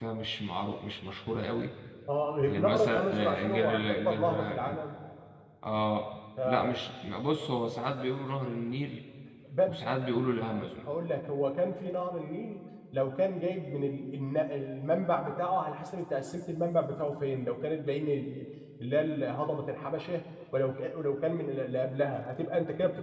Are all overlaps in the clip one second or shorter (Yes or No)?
No